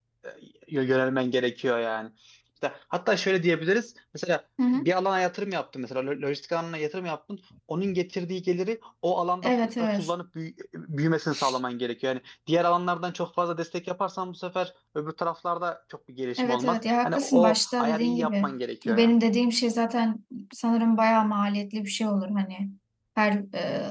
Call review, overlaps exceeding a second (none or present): present